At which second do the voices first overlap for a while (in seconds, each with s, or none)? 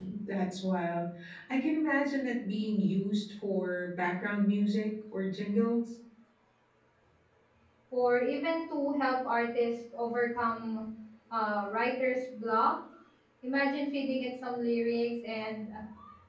none